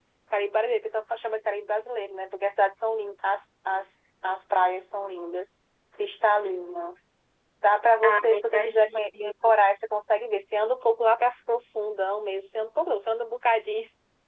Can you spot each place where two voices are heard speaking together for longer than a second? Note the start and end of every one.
8.0-9.5

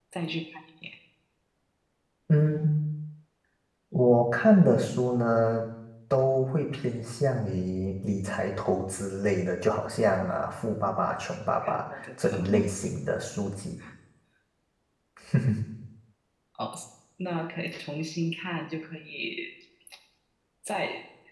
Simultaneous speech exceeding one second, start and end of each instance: none

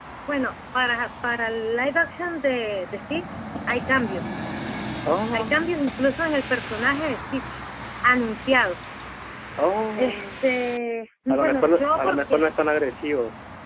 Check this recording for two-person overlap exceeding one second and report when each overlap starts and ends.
11.3-12.5

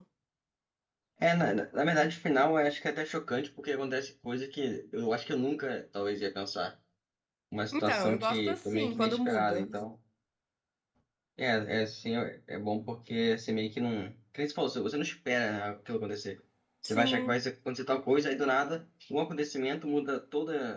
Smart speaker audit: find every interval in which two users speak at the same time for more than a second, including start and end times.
7.7-9.7

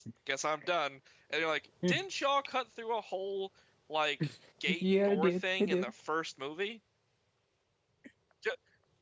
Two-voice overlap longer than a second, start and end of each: 4.7-5.9

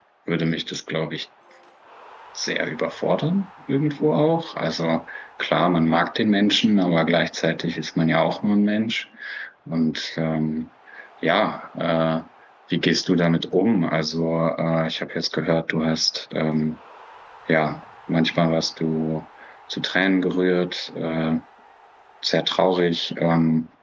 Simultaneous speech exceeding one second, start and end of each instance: none

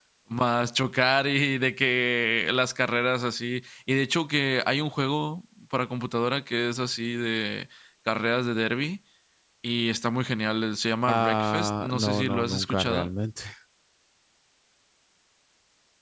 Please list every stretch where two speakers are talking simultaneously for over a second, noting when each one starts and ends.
11.1-13.1

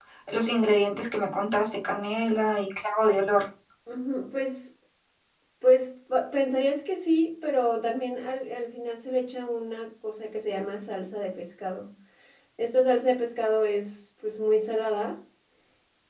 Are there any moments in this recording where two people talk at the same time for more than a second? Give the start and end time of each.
none

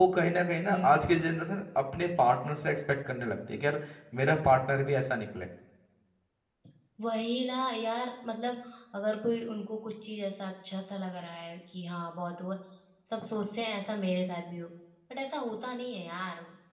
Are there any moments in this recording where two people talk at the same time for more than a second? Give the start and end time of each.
none

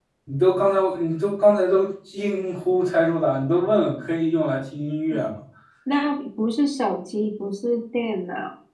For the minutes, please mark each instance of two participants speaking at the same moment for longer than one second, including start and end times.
none

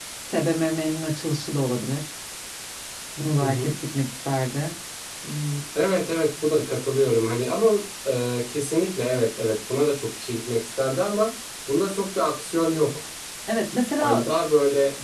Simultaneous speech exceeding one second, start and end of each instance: none

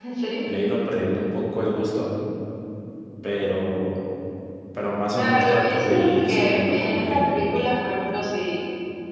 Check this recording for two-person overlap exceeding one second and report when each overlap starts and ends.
5.1-7.4

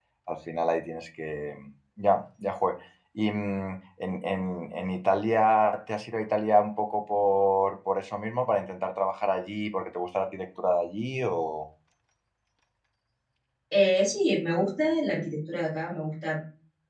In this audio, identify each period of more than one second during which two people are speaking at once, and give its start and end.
none

